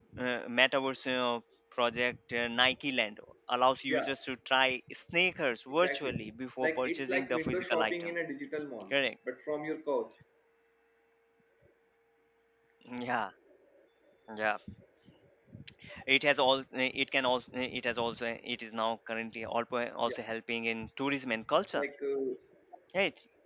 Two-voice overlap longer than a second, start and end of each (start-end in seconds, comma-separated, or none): 6.6-8.1